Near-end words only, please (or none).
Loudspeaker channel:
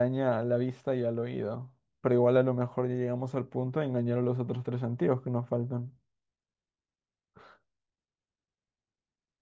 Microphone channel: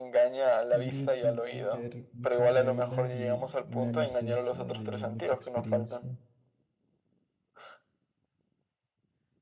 Yo creo que tendrían que haber muchas reglas y una licencia de mucha experiencia.